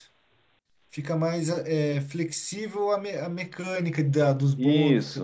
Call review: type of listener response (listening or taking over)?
taking over